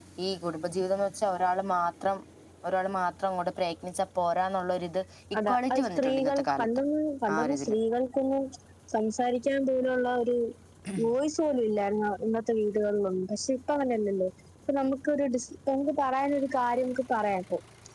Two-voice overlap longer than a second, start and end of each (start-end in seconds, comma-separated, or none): 5.5-6.7